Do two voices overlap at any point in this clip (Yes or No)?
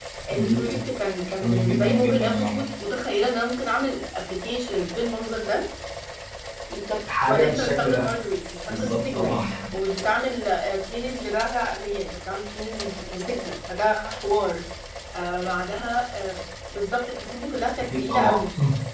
Yes